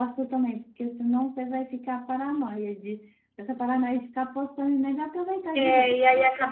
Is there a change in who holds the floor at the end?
Yes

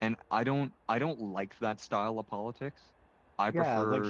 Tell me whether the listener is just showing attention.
No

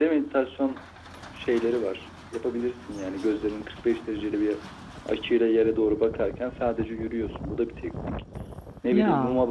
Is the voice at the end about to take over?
No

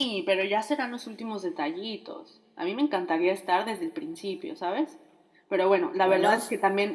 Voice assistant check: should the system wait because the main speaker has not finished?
Yes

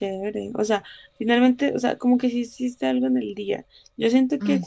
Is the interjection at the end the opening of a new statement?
No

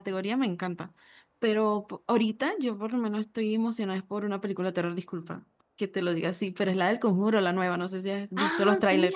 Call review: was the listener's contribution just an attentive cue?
No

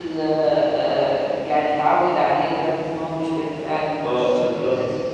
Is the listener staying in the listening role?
No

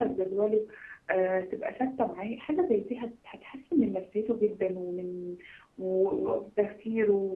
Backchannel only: Yes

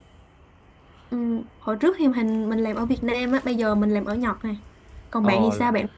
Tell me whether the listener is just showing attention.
No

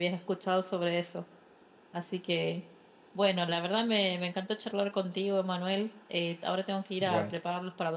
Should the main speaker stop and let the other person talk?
No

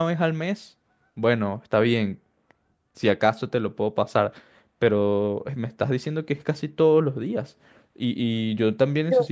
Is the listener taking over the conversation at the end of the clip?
No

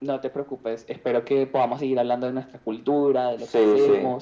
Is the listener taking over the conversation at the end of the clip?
Yes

